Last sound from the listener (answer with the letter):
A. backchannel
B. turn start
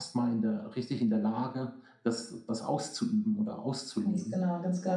B